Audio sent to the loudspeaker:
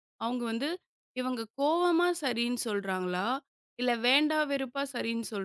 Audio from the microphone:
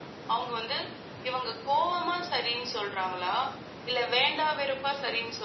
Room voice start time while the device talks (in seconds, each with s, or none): none